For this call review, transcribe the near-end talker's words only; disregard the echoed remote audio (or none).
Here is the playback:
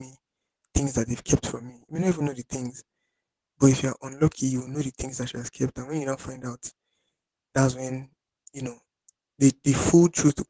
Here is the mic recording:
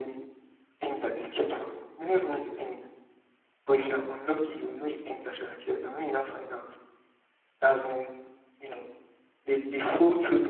none